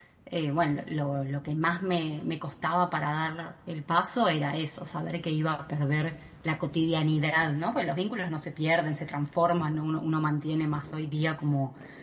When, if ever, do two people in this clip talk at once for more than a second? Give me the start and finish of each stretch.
none

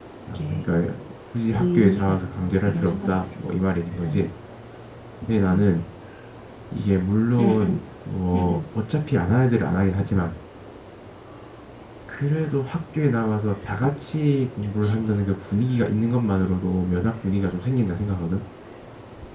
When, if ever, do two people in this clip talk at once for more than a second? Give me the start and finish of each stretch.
1.6-3.3

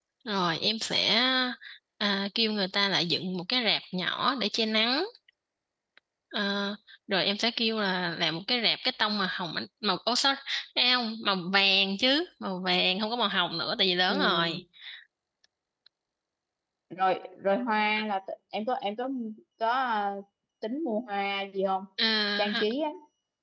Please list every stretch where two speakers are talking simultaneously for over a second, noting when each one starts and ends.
none

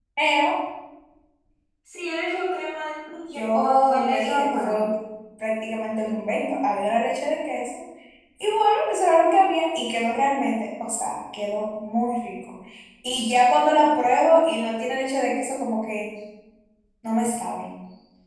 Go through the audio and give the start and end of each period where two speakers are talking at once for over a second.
3.3-4.8

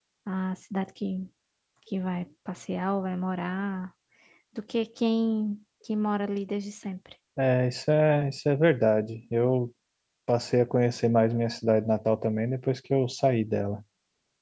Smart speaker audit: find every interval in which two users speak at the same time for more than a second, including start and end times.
none

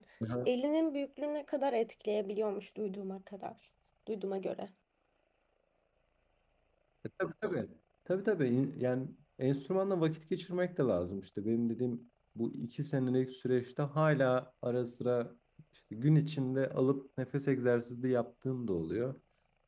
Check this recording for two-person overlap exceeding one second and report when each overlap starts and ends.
none

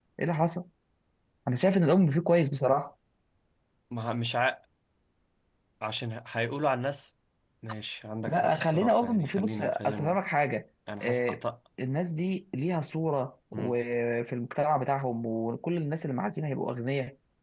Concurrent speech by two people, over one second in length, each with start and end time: 8.3-10.2

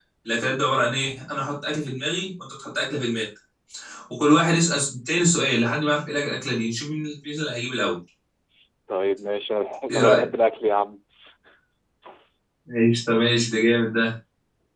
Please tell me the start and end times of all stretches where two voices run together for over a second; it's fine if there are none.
none

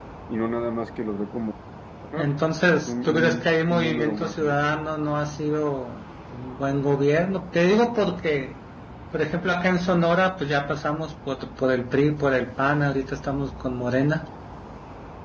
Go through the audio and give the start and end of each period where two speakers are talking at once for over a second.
2.9-4.6

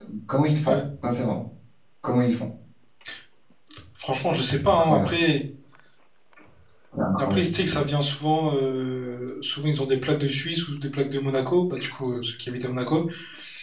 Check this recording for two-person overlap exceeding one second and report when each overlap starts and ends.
none

